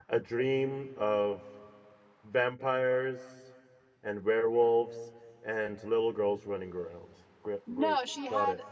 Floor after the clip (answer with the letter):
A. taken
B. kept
A